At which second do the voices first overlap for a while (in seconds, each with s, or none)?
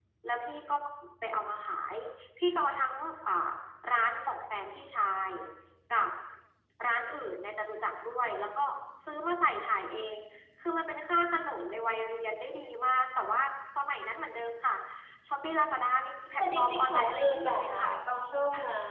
16.4 s